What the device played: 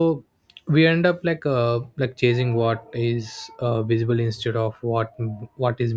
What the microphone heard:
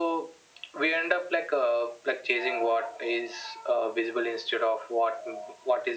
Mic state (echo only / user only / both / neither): echo only